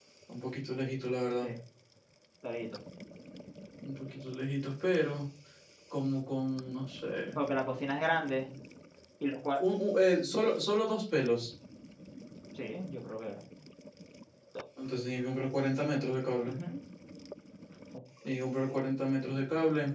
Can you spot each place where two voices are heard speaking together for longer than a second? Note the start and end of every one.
none

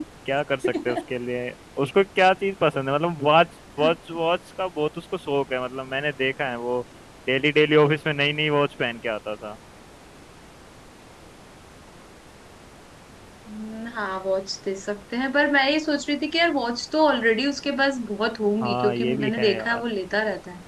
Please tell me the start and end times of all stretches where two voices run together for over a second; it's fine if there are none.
18.6-19.8

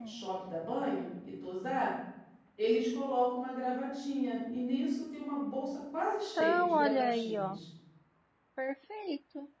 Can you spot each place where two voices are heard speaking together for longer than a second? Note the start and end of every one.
6.0-7.6

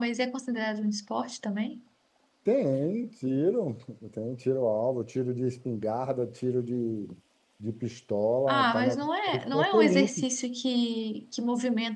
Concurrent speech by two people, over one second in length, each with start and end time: 8.5-10.1

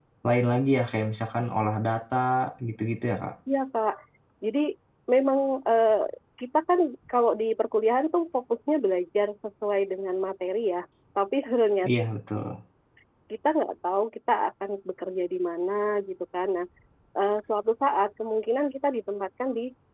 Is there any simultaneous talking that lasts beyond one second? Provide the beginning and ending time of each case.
none

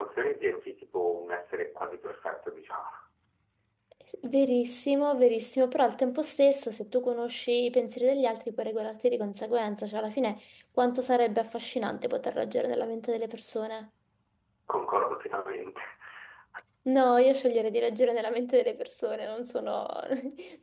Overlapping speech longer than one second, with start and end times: none

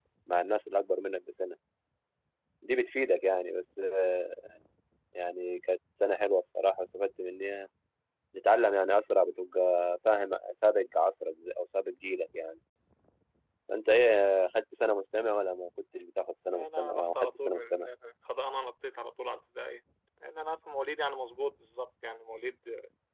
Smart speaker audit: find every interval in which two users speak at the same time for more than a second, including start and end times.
16.5-17.9

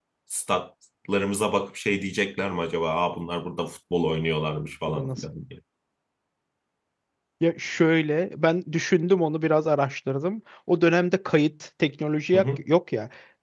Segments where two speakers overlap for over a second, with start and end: none

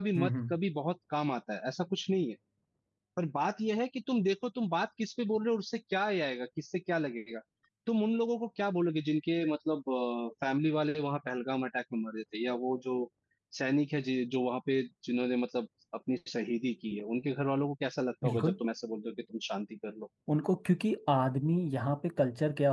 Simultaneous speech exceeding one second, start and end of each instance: none

